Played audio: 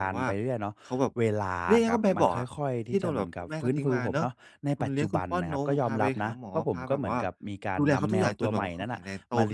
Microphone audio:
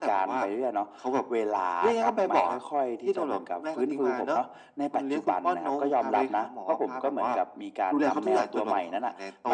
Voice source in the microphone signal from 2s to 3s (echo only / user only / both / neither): echo only